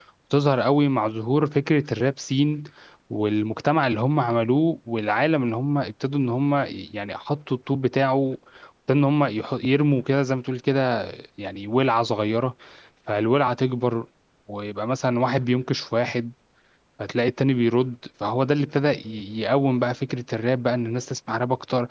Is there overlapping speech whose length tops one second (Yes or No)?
No